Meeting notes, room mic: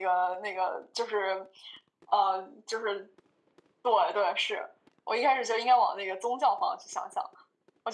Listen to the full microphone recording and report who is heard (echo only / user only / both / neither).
echo only